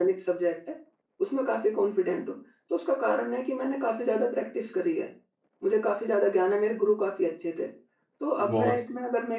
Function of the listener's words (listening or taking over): listening